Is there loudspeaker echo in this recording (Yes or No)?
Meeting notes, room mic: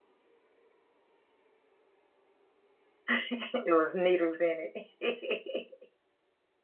No